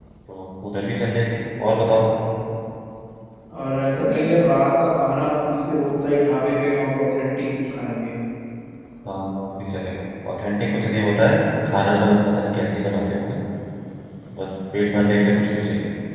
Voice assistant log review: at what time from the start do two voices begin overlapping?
none

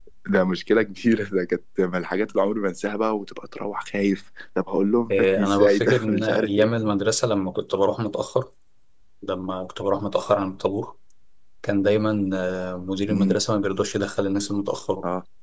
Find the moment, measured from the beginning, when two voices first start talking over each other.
5 s

